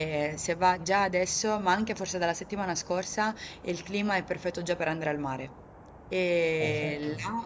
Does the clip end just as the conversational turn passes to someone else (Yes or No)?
No